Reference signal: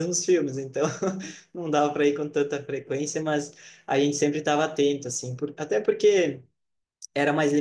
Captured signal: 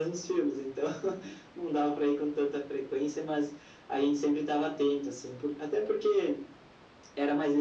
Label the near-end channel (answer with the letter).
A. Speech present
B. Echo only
B